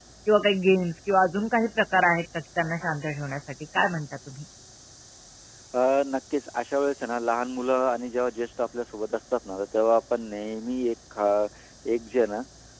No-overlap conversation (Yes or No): Yes